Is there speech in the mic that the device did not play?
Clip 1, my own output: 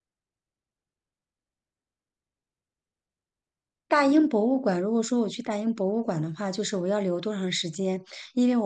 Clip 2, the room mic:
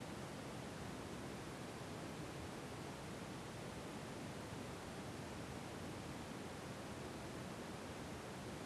No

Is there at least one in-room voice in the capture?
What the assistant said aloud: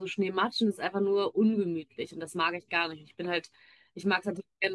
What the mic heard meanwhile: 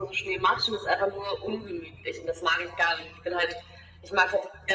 No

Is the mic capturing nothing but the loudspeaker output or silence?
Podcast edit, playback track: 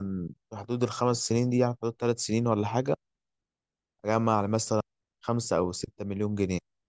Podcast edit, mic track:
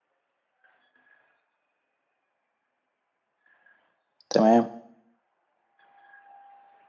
No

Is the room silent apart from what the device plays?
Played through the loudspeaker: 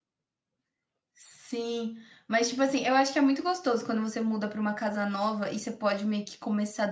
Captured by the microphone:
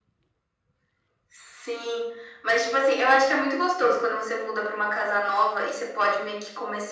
Yes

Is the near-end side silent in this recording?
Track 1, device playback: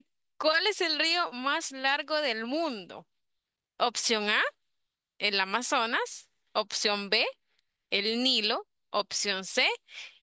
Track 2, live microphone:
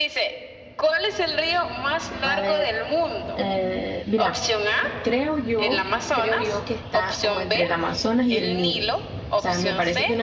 No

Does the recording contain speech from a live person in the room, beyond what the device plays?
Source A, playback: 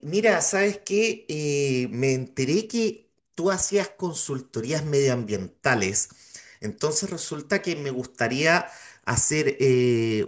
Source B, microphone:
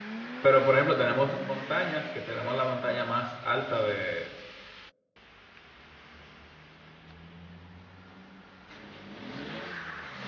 Yes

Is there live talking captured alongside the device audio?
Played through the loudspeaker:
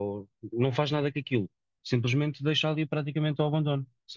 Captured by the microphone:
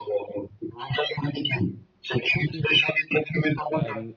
Yes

